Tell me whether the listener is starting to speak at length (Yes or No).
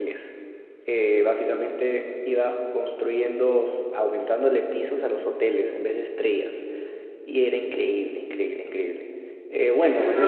Yes